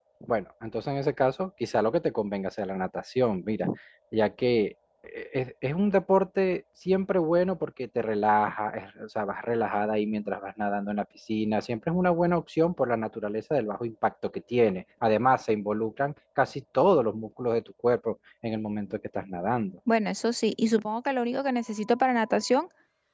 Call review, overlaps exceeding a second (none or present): none